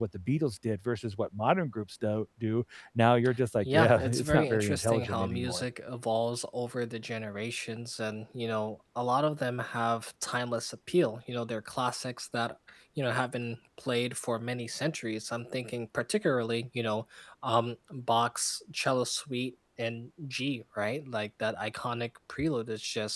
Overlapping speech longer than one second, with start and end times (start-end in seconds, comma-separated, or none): 3.6-5.6